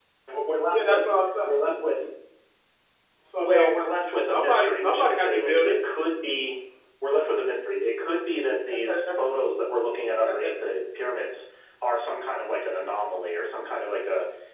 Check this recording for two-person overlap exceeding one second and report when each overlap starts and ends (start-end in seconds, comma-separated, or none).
4.3-5.7